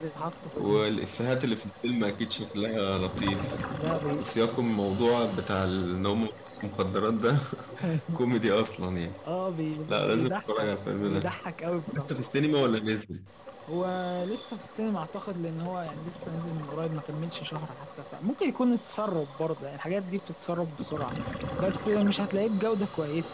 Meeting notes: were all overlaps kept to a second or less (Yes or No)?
No